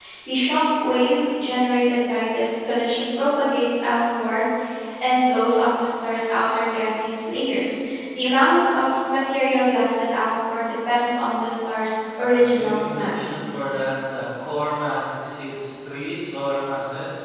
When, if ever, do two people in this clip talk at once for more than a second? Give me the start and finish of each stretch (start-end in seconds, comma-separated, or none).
12.2-13.5